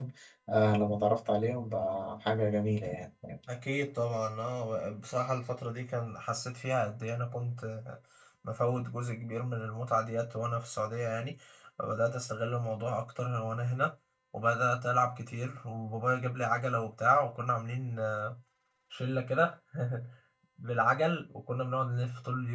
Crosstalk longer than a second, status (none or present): none